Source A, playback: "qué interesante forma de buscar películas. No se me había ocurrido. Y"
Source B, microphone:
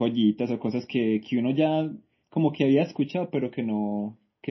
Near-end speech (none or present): present